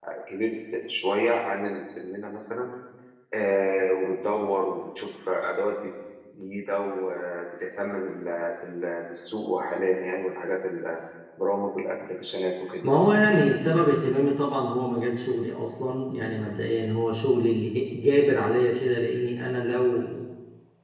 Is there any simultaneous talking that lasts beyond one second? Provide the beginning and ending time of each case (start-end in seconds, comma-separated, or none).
none